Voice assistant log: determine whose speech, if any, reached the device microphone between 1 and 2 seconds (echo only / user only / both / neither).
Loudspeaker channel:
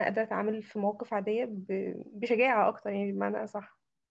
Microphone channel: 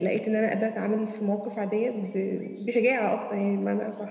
echo only